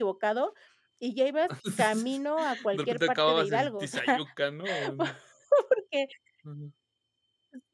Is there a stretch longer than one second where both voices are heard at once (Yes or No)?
Yes